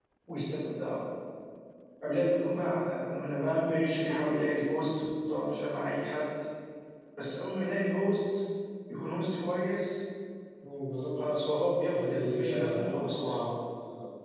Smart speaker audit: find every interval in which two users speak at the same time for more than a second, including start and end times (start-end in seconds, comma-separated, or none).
11.9-13.3